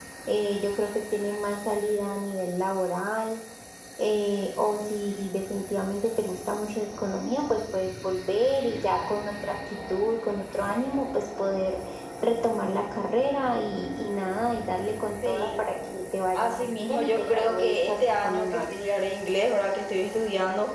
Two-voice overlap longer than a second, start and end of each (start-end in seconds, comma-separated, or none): 16.3-18.8